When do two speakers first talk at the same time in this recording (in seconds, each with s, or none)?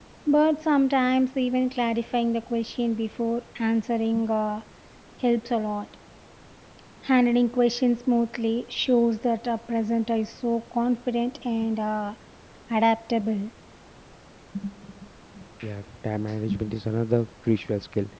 none